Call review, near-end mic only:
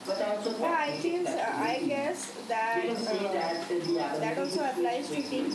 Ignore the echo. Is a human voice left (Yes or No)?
Yes